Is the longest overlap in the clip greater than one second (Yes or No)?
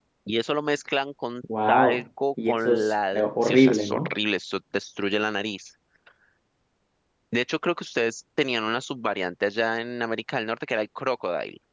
Yes